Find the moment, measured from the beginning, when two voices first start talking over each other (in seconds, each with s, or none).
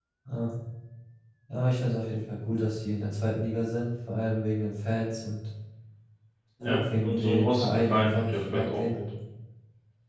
6.6 s